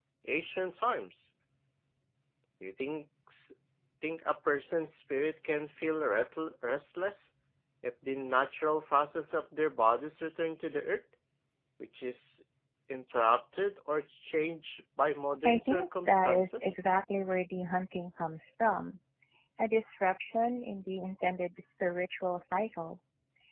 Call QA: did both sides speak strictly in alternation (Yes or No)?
No